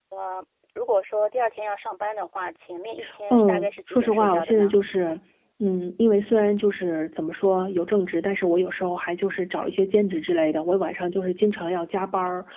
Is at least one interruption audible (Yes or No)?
Yes